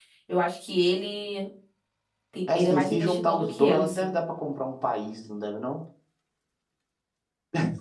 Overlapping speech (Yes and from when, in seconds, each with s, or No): Yes, from 2.6 s